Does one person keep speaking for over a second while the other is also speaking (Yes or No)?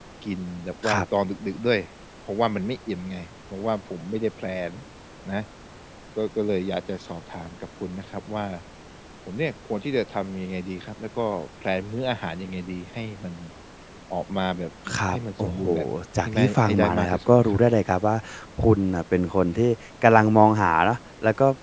Yes